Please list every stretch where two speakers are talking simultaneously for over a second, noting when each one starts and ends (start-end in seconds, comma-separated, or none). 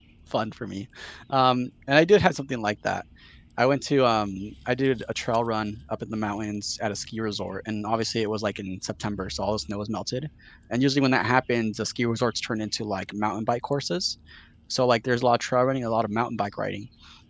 none